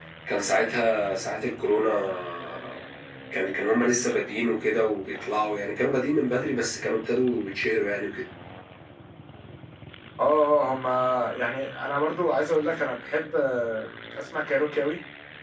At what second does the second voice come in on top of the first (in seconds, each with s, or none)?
none